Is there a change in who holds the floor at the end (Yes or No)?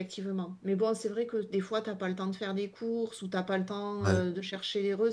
No